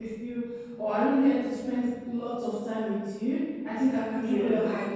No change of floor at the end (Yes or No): Yes